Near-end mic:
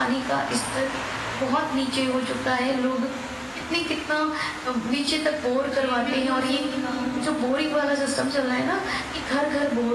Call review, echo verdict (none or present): present